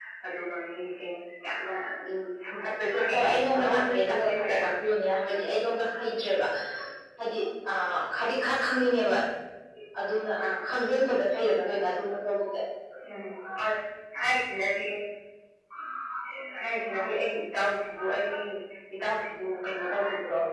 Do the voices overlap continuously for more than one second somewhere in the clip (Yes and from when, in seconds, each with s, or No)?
Yes, from 3.1 s